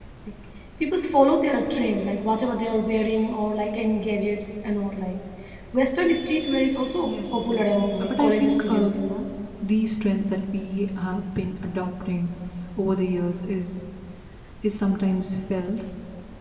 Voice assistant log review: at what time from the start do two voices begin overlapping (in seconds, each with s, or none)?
7.0 s